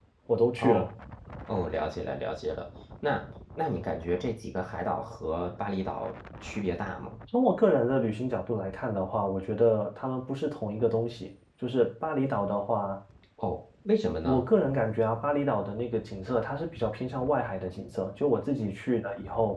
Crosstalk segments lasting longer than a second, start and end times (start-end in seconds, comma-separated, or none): none